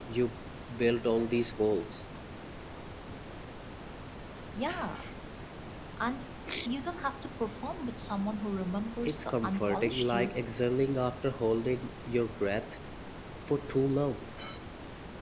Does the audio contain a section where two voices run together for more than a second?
Yes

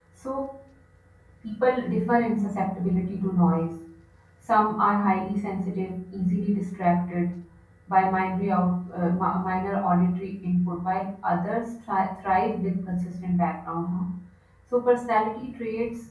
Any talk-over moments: No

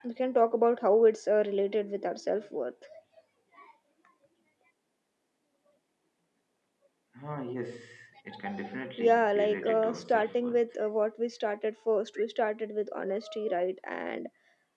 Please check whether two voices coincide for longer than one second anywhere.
Yes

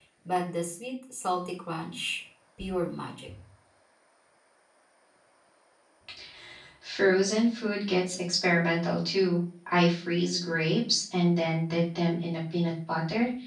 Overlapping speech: No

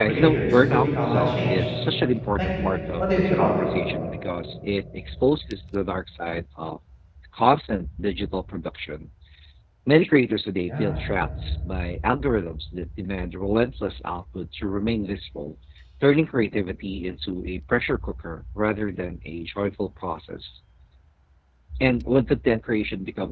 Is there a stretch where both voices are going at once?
Yes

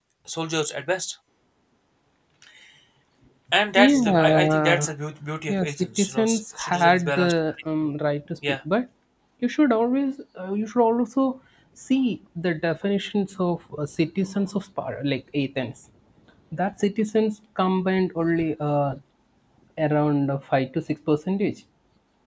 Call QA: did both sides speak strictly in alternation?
No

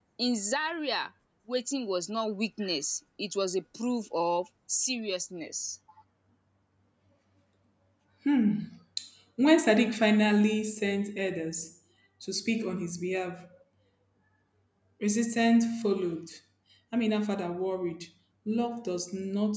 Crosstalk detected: No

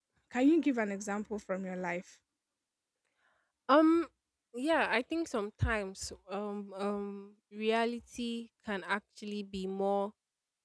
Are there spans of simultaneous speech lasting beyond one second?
No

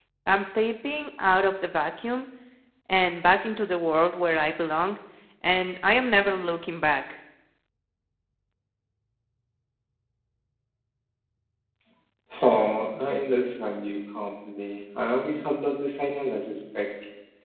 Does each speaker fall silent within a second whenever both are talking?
Yes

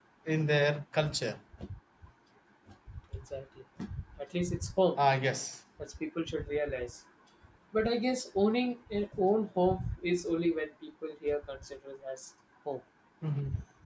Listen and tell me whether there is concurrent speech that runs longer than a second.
No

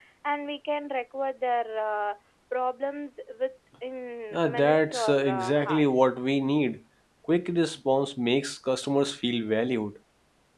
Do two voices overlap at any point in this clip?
Yes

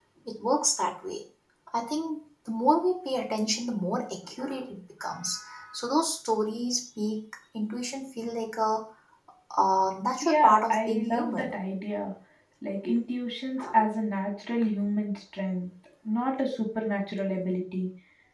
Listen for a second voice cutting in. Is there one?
Yes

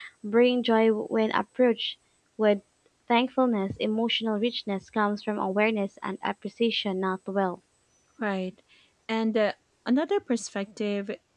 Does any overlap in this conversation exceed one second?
No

